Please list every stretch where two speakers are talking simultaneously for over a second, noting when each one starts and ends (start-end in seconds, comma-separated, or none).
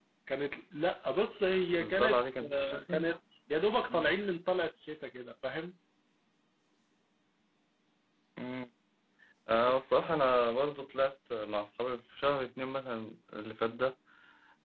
1.7-3.0